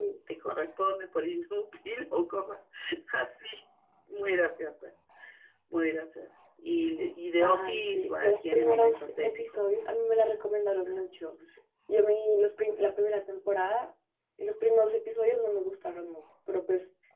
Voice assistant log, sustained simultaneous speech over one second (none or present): present